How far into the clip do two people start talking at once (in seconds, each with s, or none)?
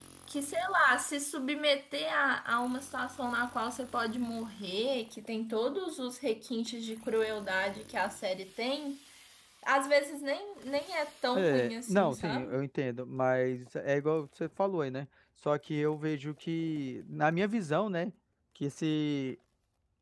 11.3 s